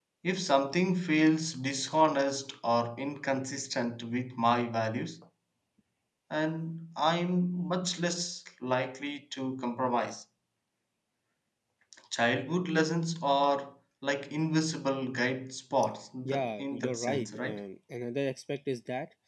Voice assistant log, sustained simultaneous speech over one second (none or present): present